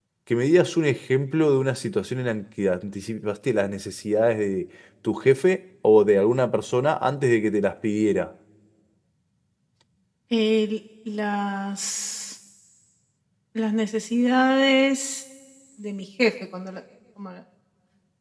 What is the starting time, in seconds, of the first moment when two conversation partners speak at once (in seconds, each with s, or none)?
none